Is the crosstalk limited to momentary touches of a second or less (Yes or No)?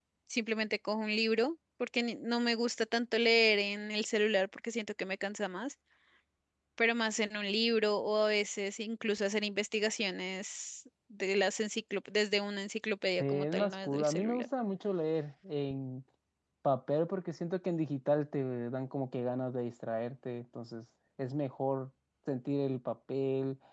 No